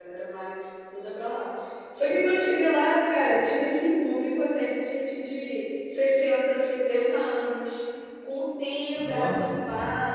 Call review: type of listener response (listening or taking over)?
listening